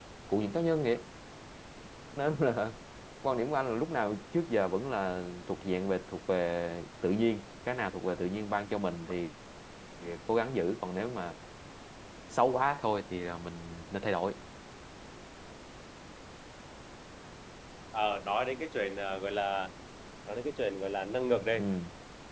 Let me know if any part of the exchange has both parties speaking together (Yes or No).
No